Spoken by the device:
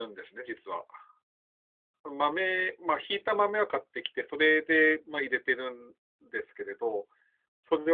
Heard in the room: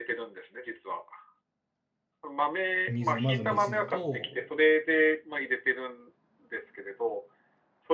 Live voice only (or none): 水、まず水と、